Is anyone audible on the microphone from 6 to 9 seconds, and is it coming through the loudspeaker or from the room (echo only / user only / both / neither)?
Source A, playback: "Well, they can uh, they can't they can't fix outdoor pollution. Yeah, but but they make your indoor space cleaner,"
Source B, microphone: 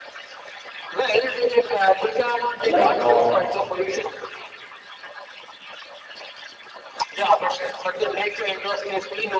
echo only